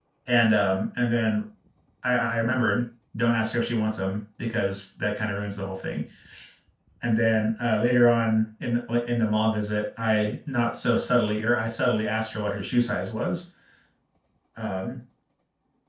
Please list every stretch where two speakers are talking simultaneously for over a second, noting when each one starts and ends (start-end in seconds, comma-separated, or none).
none